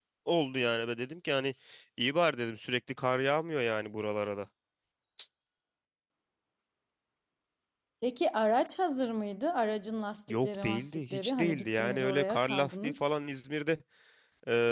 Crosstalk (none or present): present